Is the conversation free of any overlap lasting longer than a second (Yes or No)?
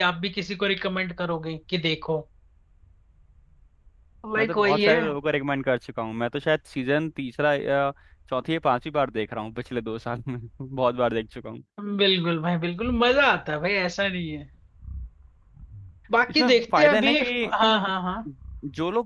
No